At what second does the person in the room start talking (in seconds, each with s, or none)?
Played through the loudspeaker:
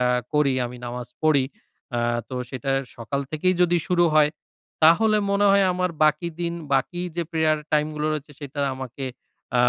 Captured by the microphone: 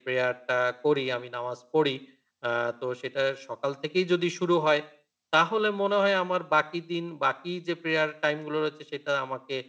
none